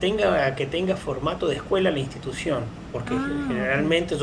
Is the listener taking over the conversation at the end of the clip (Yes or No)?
No